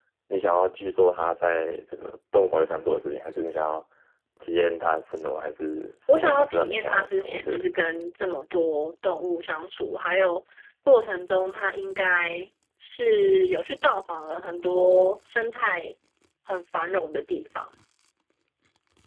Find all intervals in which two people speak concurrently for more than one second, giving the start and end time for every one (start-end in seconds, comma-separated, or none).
6.1-7.7